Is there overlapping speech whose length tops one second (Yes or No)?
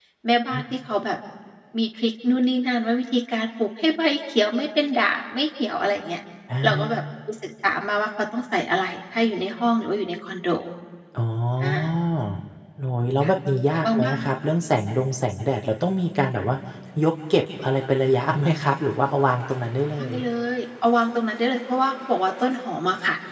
No